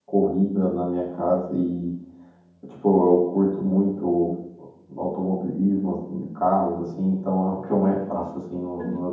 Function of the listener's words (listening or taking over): taking over